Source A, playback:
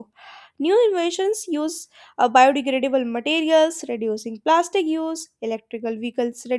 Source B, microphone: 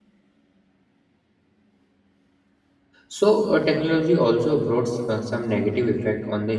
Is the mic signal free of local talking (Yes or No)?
No